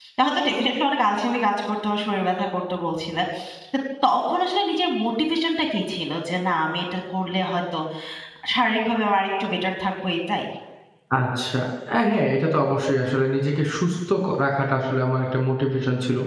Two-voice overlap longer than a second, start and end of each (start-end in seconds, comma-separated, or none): none